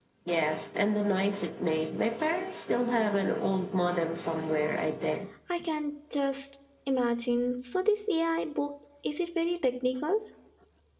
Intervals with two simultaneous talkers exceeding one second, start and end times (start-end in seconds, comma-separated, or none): none